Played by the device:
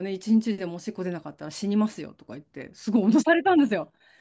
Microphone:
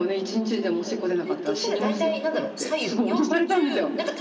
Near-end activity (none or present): present